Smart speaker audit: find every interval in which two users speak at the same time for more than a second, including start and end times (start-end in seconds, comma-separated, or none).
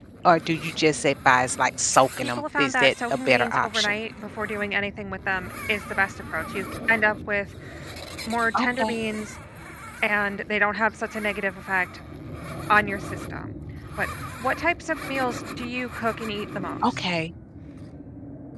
2.4-3.9